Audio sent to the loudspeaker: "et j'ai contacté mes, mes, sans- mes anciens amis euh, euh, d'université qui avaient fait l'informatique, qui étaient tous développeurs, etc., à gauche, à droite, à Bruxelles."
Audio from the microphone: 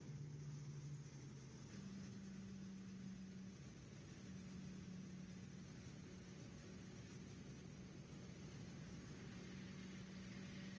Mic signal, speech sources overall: neither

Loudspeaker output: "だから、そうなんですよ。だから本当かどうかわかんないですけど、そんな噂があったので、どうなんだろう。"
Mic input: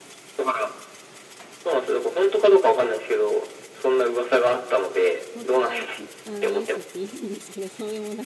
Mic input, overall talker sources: both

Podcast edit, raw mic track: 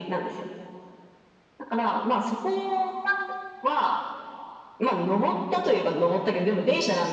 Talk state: echo only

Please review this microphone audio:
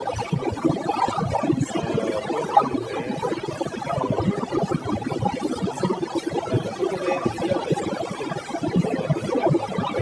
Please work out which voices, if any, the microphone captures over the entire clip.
both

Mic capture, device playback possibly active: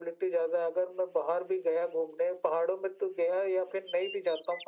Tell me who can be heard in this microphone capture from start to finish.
echo only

